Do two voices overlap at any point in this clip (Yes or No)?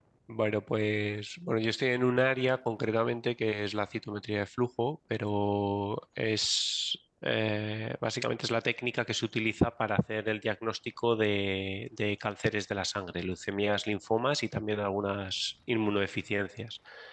No